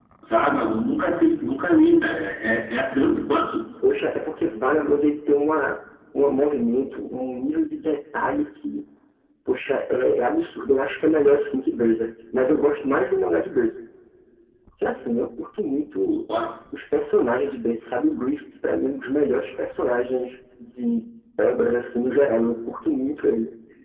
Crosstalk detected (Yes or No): No